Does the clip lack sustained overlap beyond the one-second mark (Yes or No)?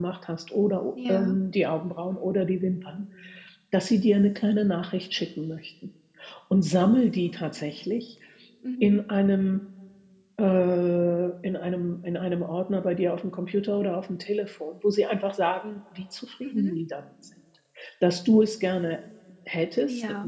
Yes